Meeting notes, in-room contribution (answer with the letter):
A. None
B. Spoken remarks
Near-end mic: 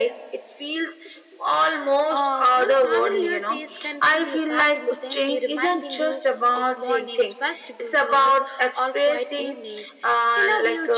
A